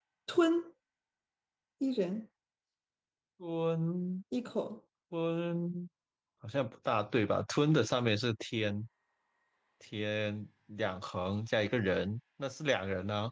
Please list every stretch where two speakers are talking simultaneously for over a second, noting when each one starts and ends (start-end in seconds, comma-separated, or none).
none